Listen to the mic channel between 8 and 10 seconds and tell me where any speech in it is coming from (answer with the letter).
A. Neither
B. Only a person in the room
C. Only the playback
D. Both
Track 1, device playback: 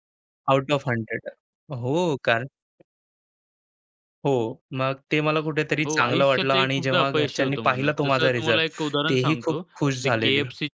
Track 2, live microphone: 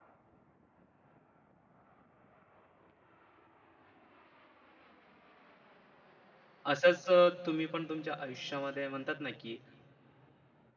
B